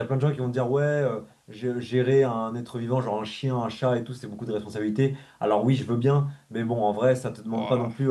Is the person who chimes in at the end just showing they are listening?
Yes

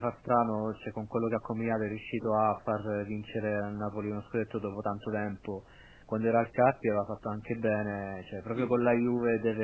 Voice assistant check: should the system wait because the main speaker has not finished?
Yes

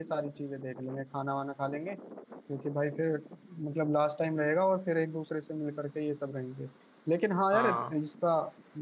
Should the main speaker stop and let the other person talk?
No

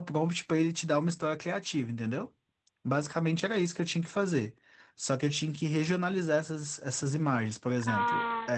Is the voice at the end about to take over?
No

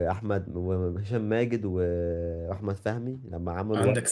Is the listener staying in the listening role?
No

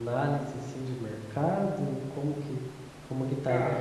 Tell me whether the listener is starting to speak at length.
No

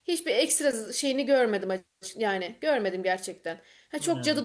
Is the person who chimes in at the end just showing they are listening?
Yes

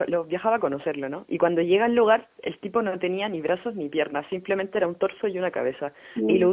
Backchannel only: Yes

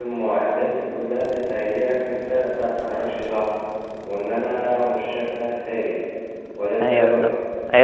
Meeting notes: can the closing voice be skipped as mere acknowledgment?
No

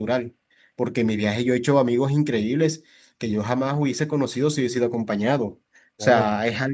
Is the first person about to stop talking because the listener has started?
No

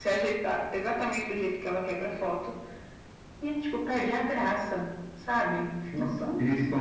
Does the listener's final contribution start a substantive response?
Yes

